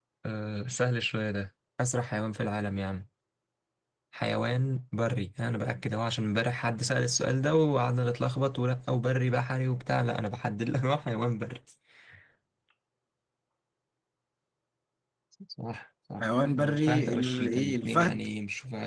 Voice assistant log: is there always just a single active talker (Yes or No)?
No